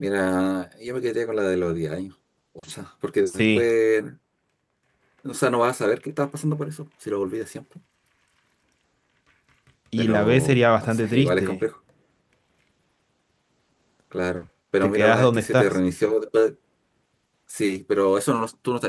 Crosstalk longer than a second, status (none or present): present